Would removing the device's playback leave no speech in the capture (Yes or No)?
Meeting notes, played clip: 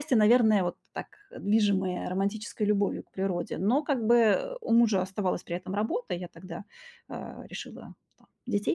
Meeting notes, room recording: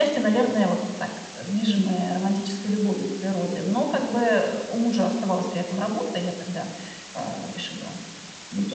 Yes